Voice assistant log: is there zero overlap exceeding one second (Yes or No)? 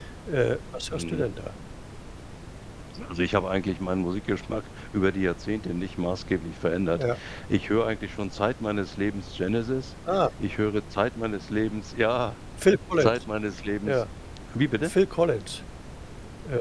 Yes